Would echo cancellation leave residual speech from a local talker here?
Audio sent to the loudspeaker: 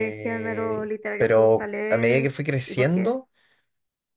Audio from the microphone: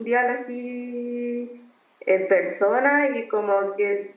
Yes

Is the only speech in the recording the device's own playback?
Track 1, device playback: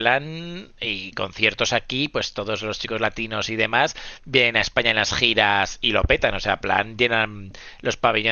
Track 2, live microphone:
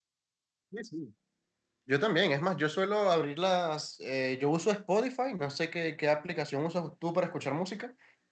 No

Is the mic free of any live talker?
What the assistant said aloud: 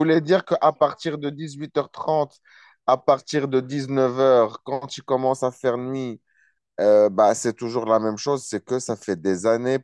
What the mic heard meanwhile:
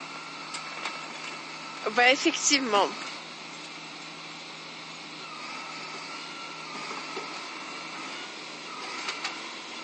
No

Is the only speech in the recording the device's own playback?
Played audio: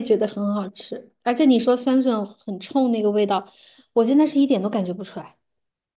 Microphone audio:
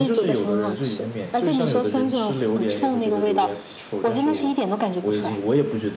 No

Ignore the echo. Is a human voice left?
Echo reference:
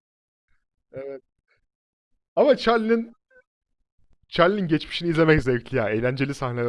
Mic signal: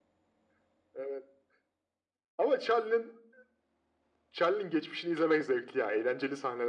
No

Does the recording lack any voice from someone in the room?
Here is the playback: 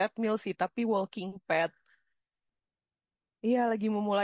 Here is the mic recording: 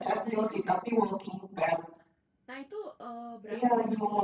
No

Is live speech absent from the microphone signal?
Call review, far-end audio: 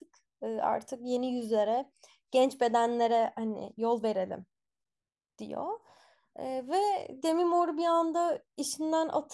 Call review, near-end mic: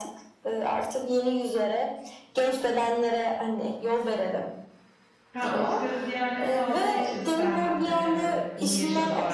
No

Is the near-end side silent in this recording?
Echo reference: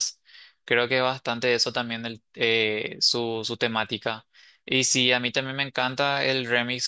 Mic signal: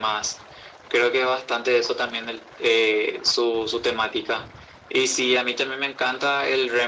Yes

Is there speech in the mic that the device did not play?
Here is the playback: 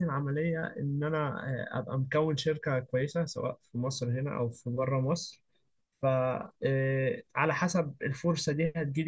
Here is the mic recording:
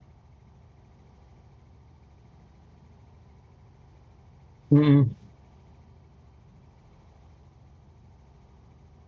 Yes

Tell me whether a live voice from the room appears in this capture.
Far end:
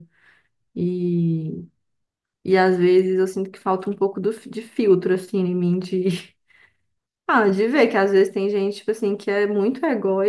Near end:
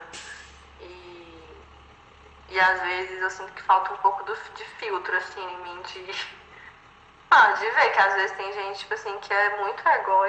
No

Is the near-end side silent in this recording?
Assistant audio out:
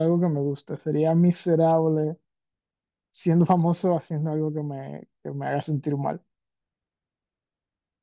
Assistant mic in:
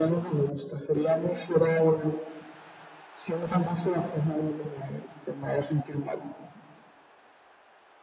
Yes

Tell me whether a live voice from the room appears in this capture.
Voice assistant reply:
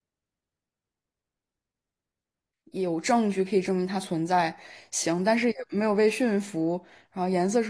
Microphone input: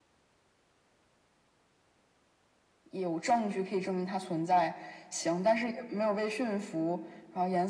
No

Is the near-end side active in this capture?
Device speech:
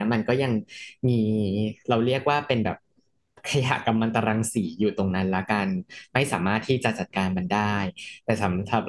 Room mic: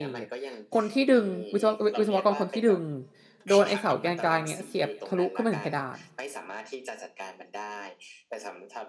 Yes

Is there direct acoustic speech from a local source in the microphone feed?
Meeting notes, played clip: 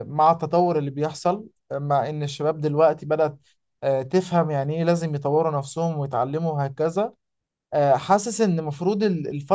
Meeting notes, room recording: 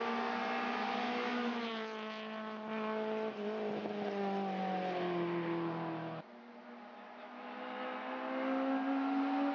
No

